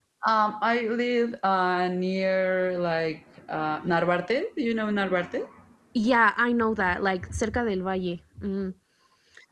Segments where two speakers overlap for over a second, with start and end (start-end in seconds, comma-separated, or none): none